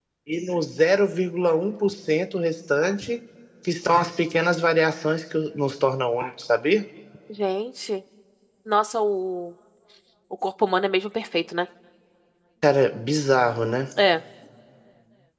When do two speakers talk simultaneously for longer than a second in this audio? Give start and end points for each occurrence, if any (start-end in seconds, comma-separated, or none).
none